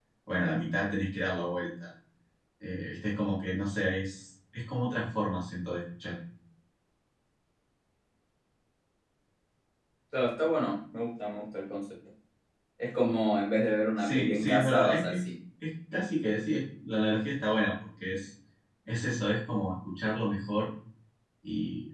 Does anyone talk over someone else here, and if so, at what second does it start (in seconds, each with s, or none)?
14.0 s